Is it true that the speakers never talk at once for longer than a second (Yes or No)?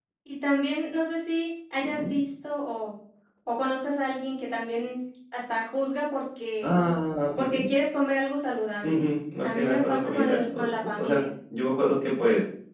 No